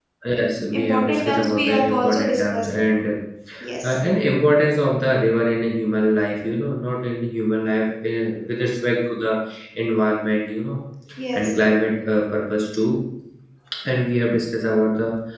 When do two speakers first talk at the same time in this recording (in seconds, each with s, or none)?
0.7 s